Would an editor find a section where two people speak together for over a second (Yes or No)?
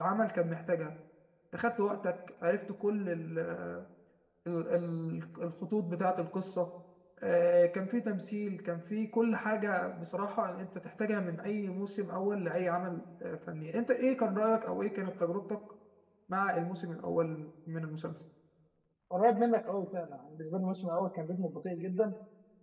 No